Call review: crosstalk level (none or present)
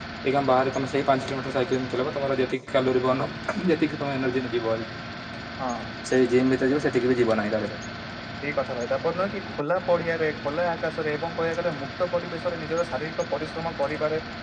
none